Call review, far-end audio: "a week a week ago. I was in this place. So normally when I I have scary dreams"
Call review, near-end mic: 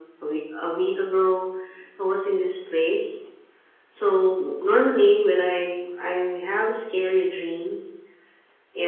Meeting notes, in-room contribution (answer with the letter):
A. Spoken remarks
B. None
B